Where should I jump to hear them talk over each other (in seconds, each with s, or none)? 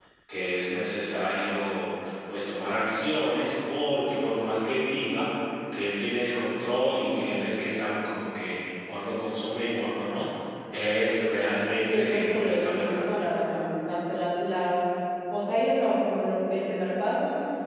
11.7 s